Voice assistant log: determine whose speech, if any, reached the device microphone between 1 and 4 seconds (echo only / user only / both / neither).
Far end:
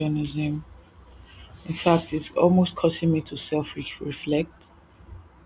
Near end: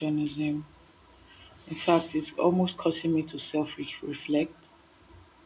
echo only